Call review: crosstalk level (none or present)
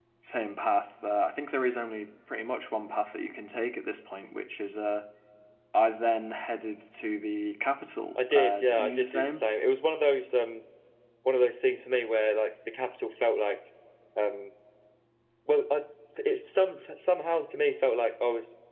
present